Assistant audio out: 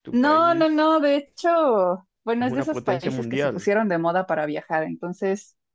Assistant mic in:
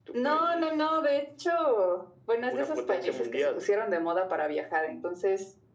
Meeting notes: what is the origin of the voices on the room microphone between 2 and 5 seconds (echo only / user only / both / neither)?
echo only